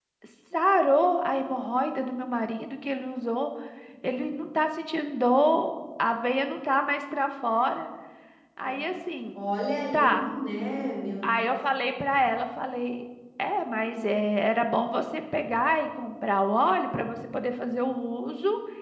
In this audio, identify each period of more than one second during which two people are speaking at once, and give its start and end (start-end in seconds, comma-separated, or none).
none